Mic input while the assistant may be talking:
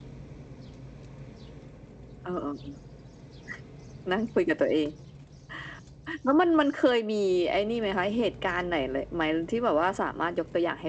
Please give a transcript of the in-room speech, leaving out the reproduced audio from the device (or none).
none